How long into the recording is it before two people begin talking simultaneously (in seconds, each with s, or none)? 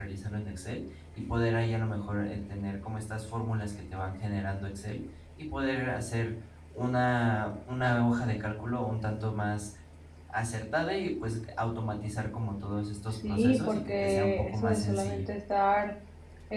13.2 s